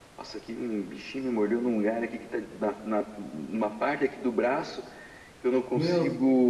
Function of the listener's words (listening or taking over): listening